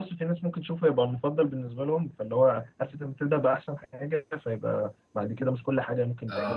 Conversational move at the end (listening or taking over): taking over